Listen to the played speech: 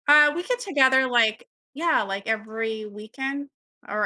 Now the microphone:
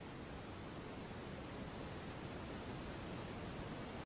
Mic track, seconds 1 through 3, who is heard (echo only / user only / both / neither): neither